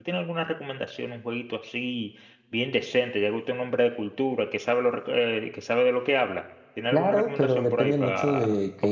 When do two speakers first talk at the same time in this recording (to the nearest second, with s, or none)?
7 s